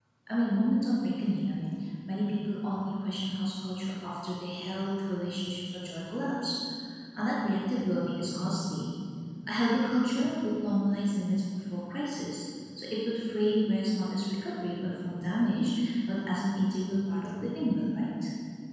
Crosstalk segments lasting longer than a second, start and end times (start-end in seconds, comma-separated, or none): none